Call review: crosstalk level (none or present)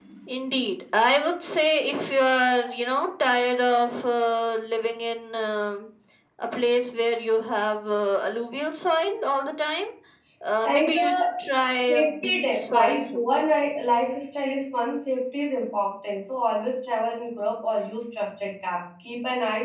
present